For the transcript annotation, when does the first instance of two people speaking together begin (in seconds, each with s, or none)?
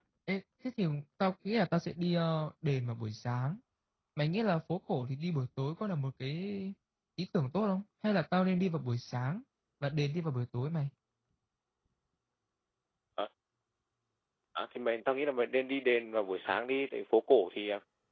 none